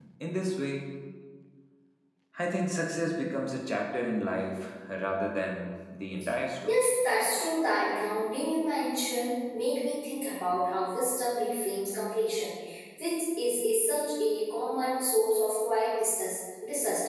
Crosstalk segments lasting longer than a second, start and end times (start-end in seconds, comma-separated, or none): none